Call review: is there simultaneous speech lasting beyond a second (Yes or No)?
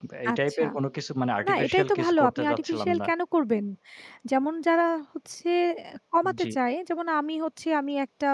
Yes